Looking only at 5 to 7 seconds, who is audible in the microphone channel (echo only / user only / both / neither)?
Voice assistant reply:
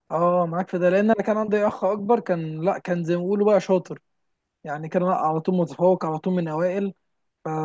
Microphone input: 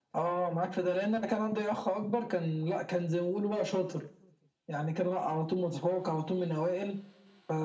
echo only